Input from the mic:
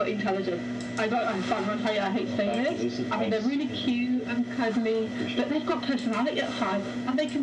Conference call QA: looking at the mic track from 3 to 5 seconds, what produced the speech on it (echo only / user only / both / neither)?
echo only